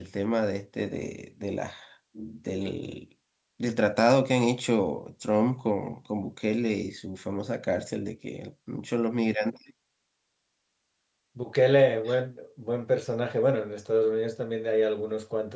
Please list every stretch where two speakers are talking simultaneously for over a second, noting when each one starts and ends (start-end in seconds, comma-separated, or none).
none